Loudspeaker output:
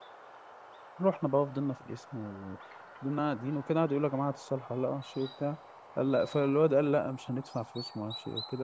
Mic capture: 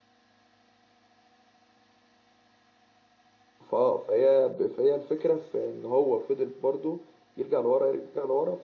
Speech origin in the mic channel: user only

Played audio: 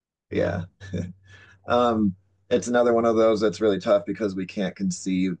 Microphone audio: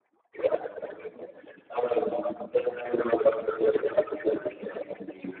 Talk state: echo only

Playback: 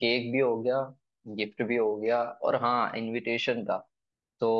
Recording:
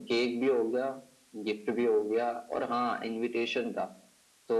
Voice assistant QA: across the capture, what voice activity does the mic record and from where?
echo only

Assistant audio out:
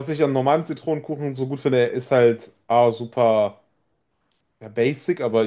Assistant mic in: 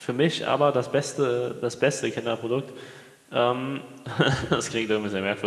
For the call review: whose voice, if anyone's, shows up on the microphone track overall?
user only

